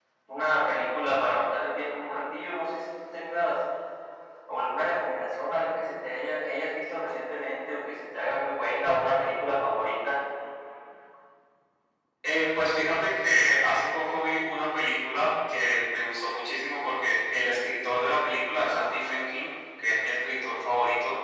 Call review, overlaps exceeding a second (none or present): none